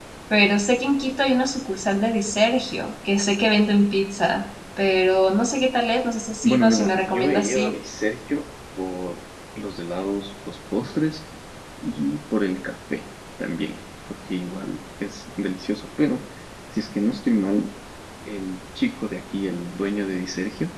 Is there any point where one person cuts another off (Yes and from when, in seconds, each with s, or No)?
Yes, from 6.4 s